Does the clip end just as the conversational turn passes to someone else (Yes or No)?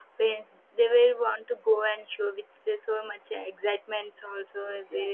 Yes